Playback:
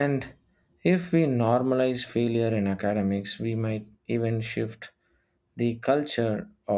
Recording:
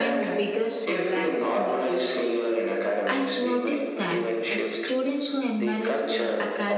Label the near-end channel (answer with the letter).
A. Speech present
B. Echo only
A